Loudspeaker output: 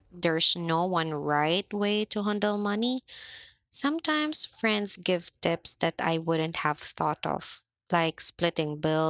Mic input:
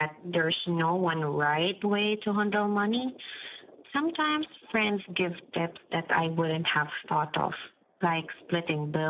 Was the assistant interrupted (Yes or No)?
No